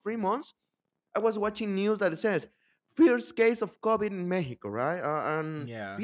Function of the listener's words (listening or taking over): listening